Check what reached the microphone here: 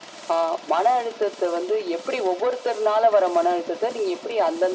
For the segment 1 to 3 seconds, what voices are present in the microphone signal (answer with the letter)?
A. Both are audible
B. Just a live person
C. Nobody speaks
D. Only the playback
D